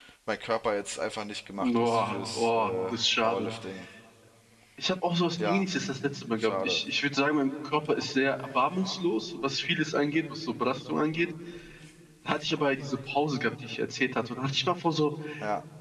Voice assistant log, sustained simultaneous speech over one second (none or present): present